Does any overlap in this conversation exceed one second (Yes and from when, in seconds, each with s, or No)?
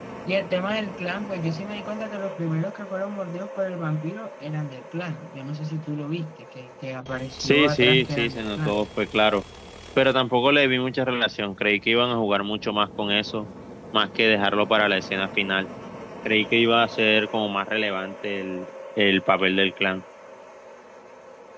Yes, from 7.4 s